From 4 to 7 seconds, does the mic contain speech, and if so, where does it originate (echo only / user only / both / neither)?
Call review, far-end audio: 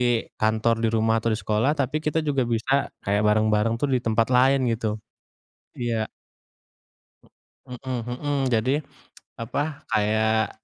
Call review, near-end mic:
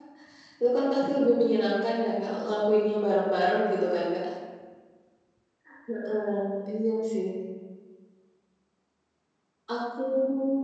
user only